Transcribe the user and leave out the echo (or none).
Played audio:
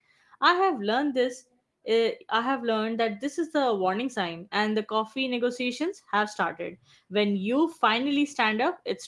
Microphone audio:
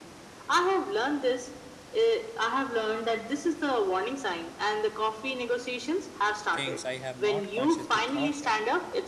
things I have not consciously thought yet.